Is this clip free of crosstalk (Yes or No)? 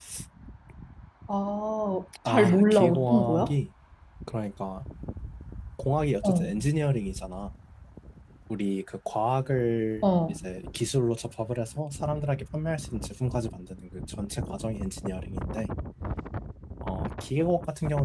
No